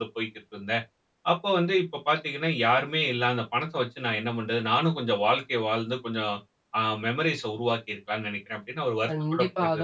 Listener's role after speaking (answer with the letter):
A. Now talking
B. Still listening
A